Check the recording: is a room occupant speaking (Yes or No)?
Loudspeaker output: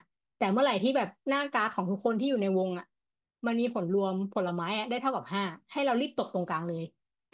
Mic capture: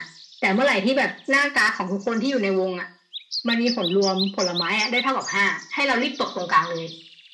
No